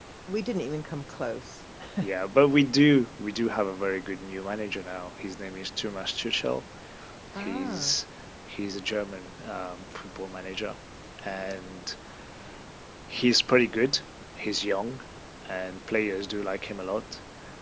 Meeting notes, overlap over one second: none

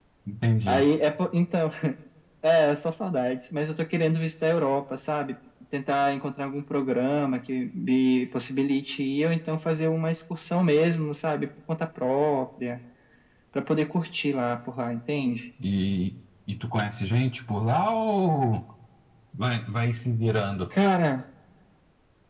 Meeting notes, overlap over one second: none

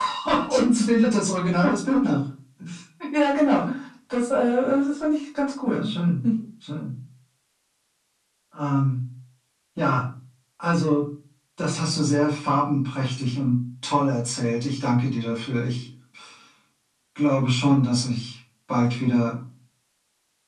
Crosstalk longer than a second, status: none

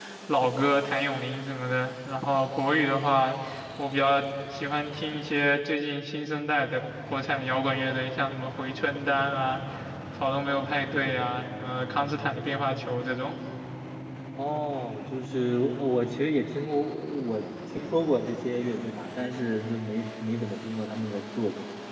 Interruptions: none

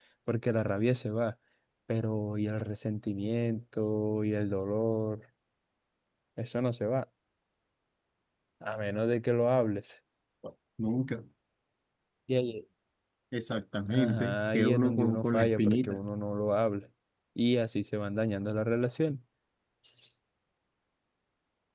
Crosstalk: present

